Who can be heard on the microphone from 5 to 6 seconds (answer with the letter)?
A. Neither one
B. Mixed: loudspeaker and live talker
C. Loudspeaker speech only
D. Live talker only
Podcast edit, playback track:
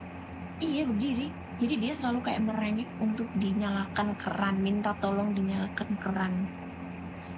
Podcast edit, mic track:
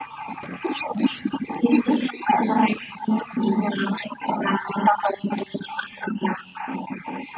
C